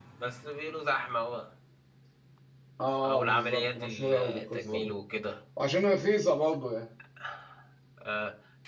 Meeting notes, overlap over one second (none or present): present